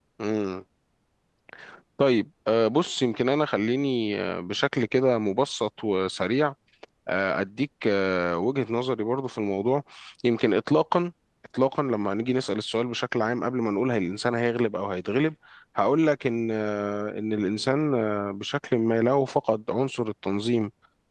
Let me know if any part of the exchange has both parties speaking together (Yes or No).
No